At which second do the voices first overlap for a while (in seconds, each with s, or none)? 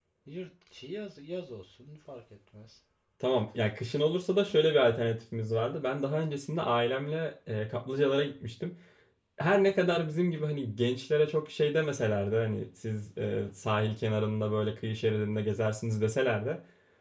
none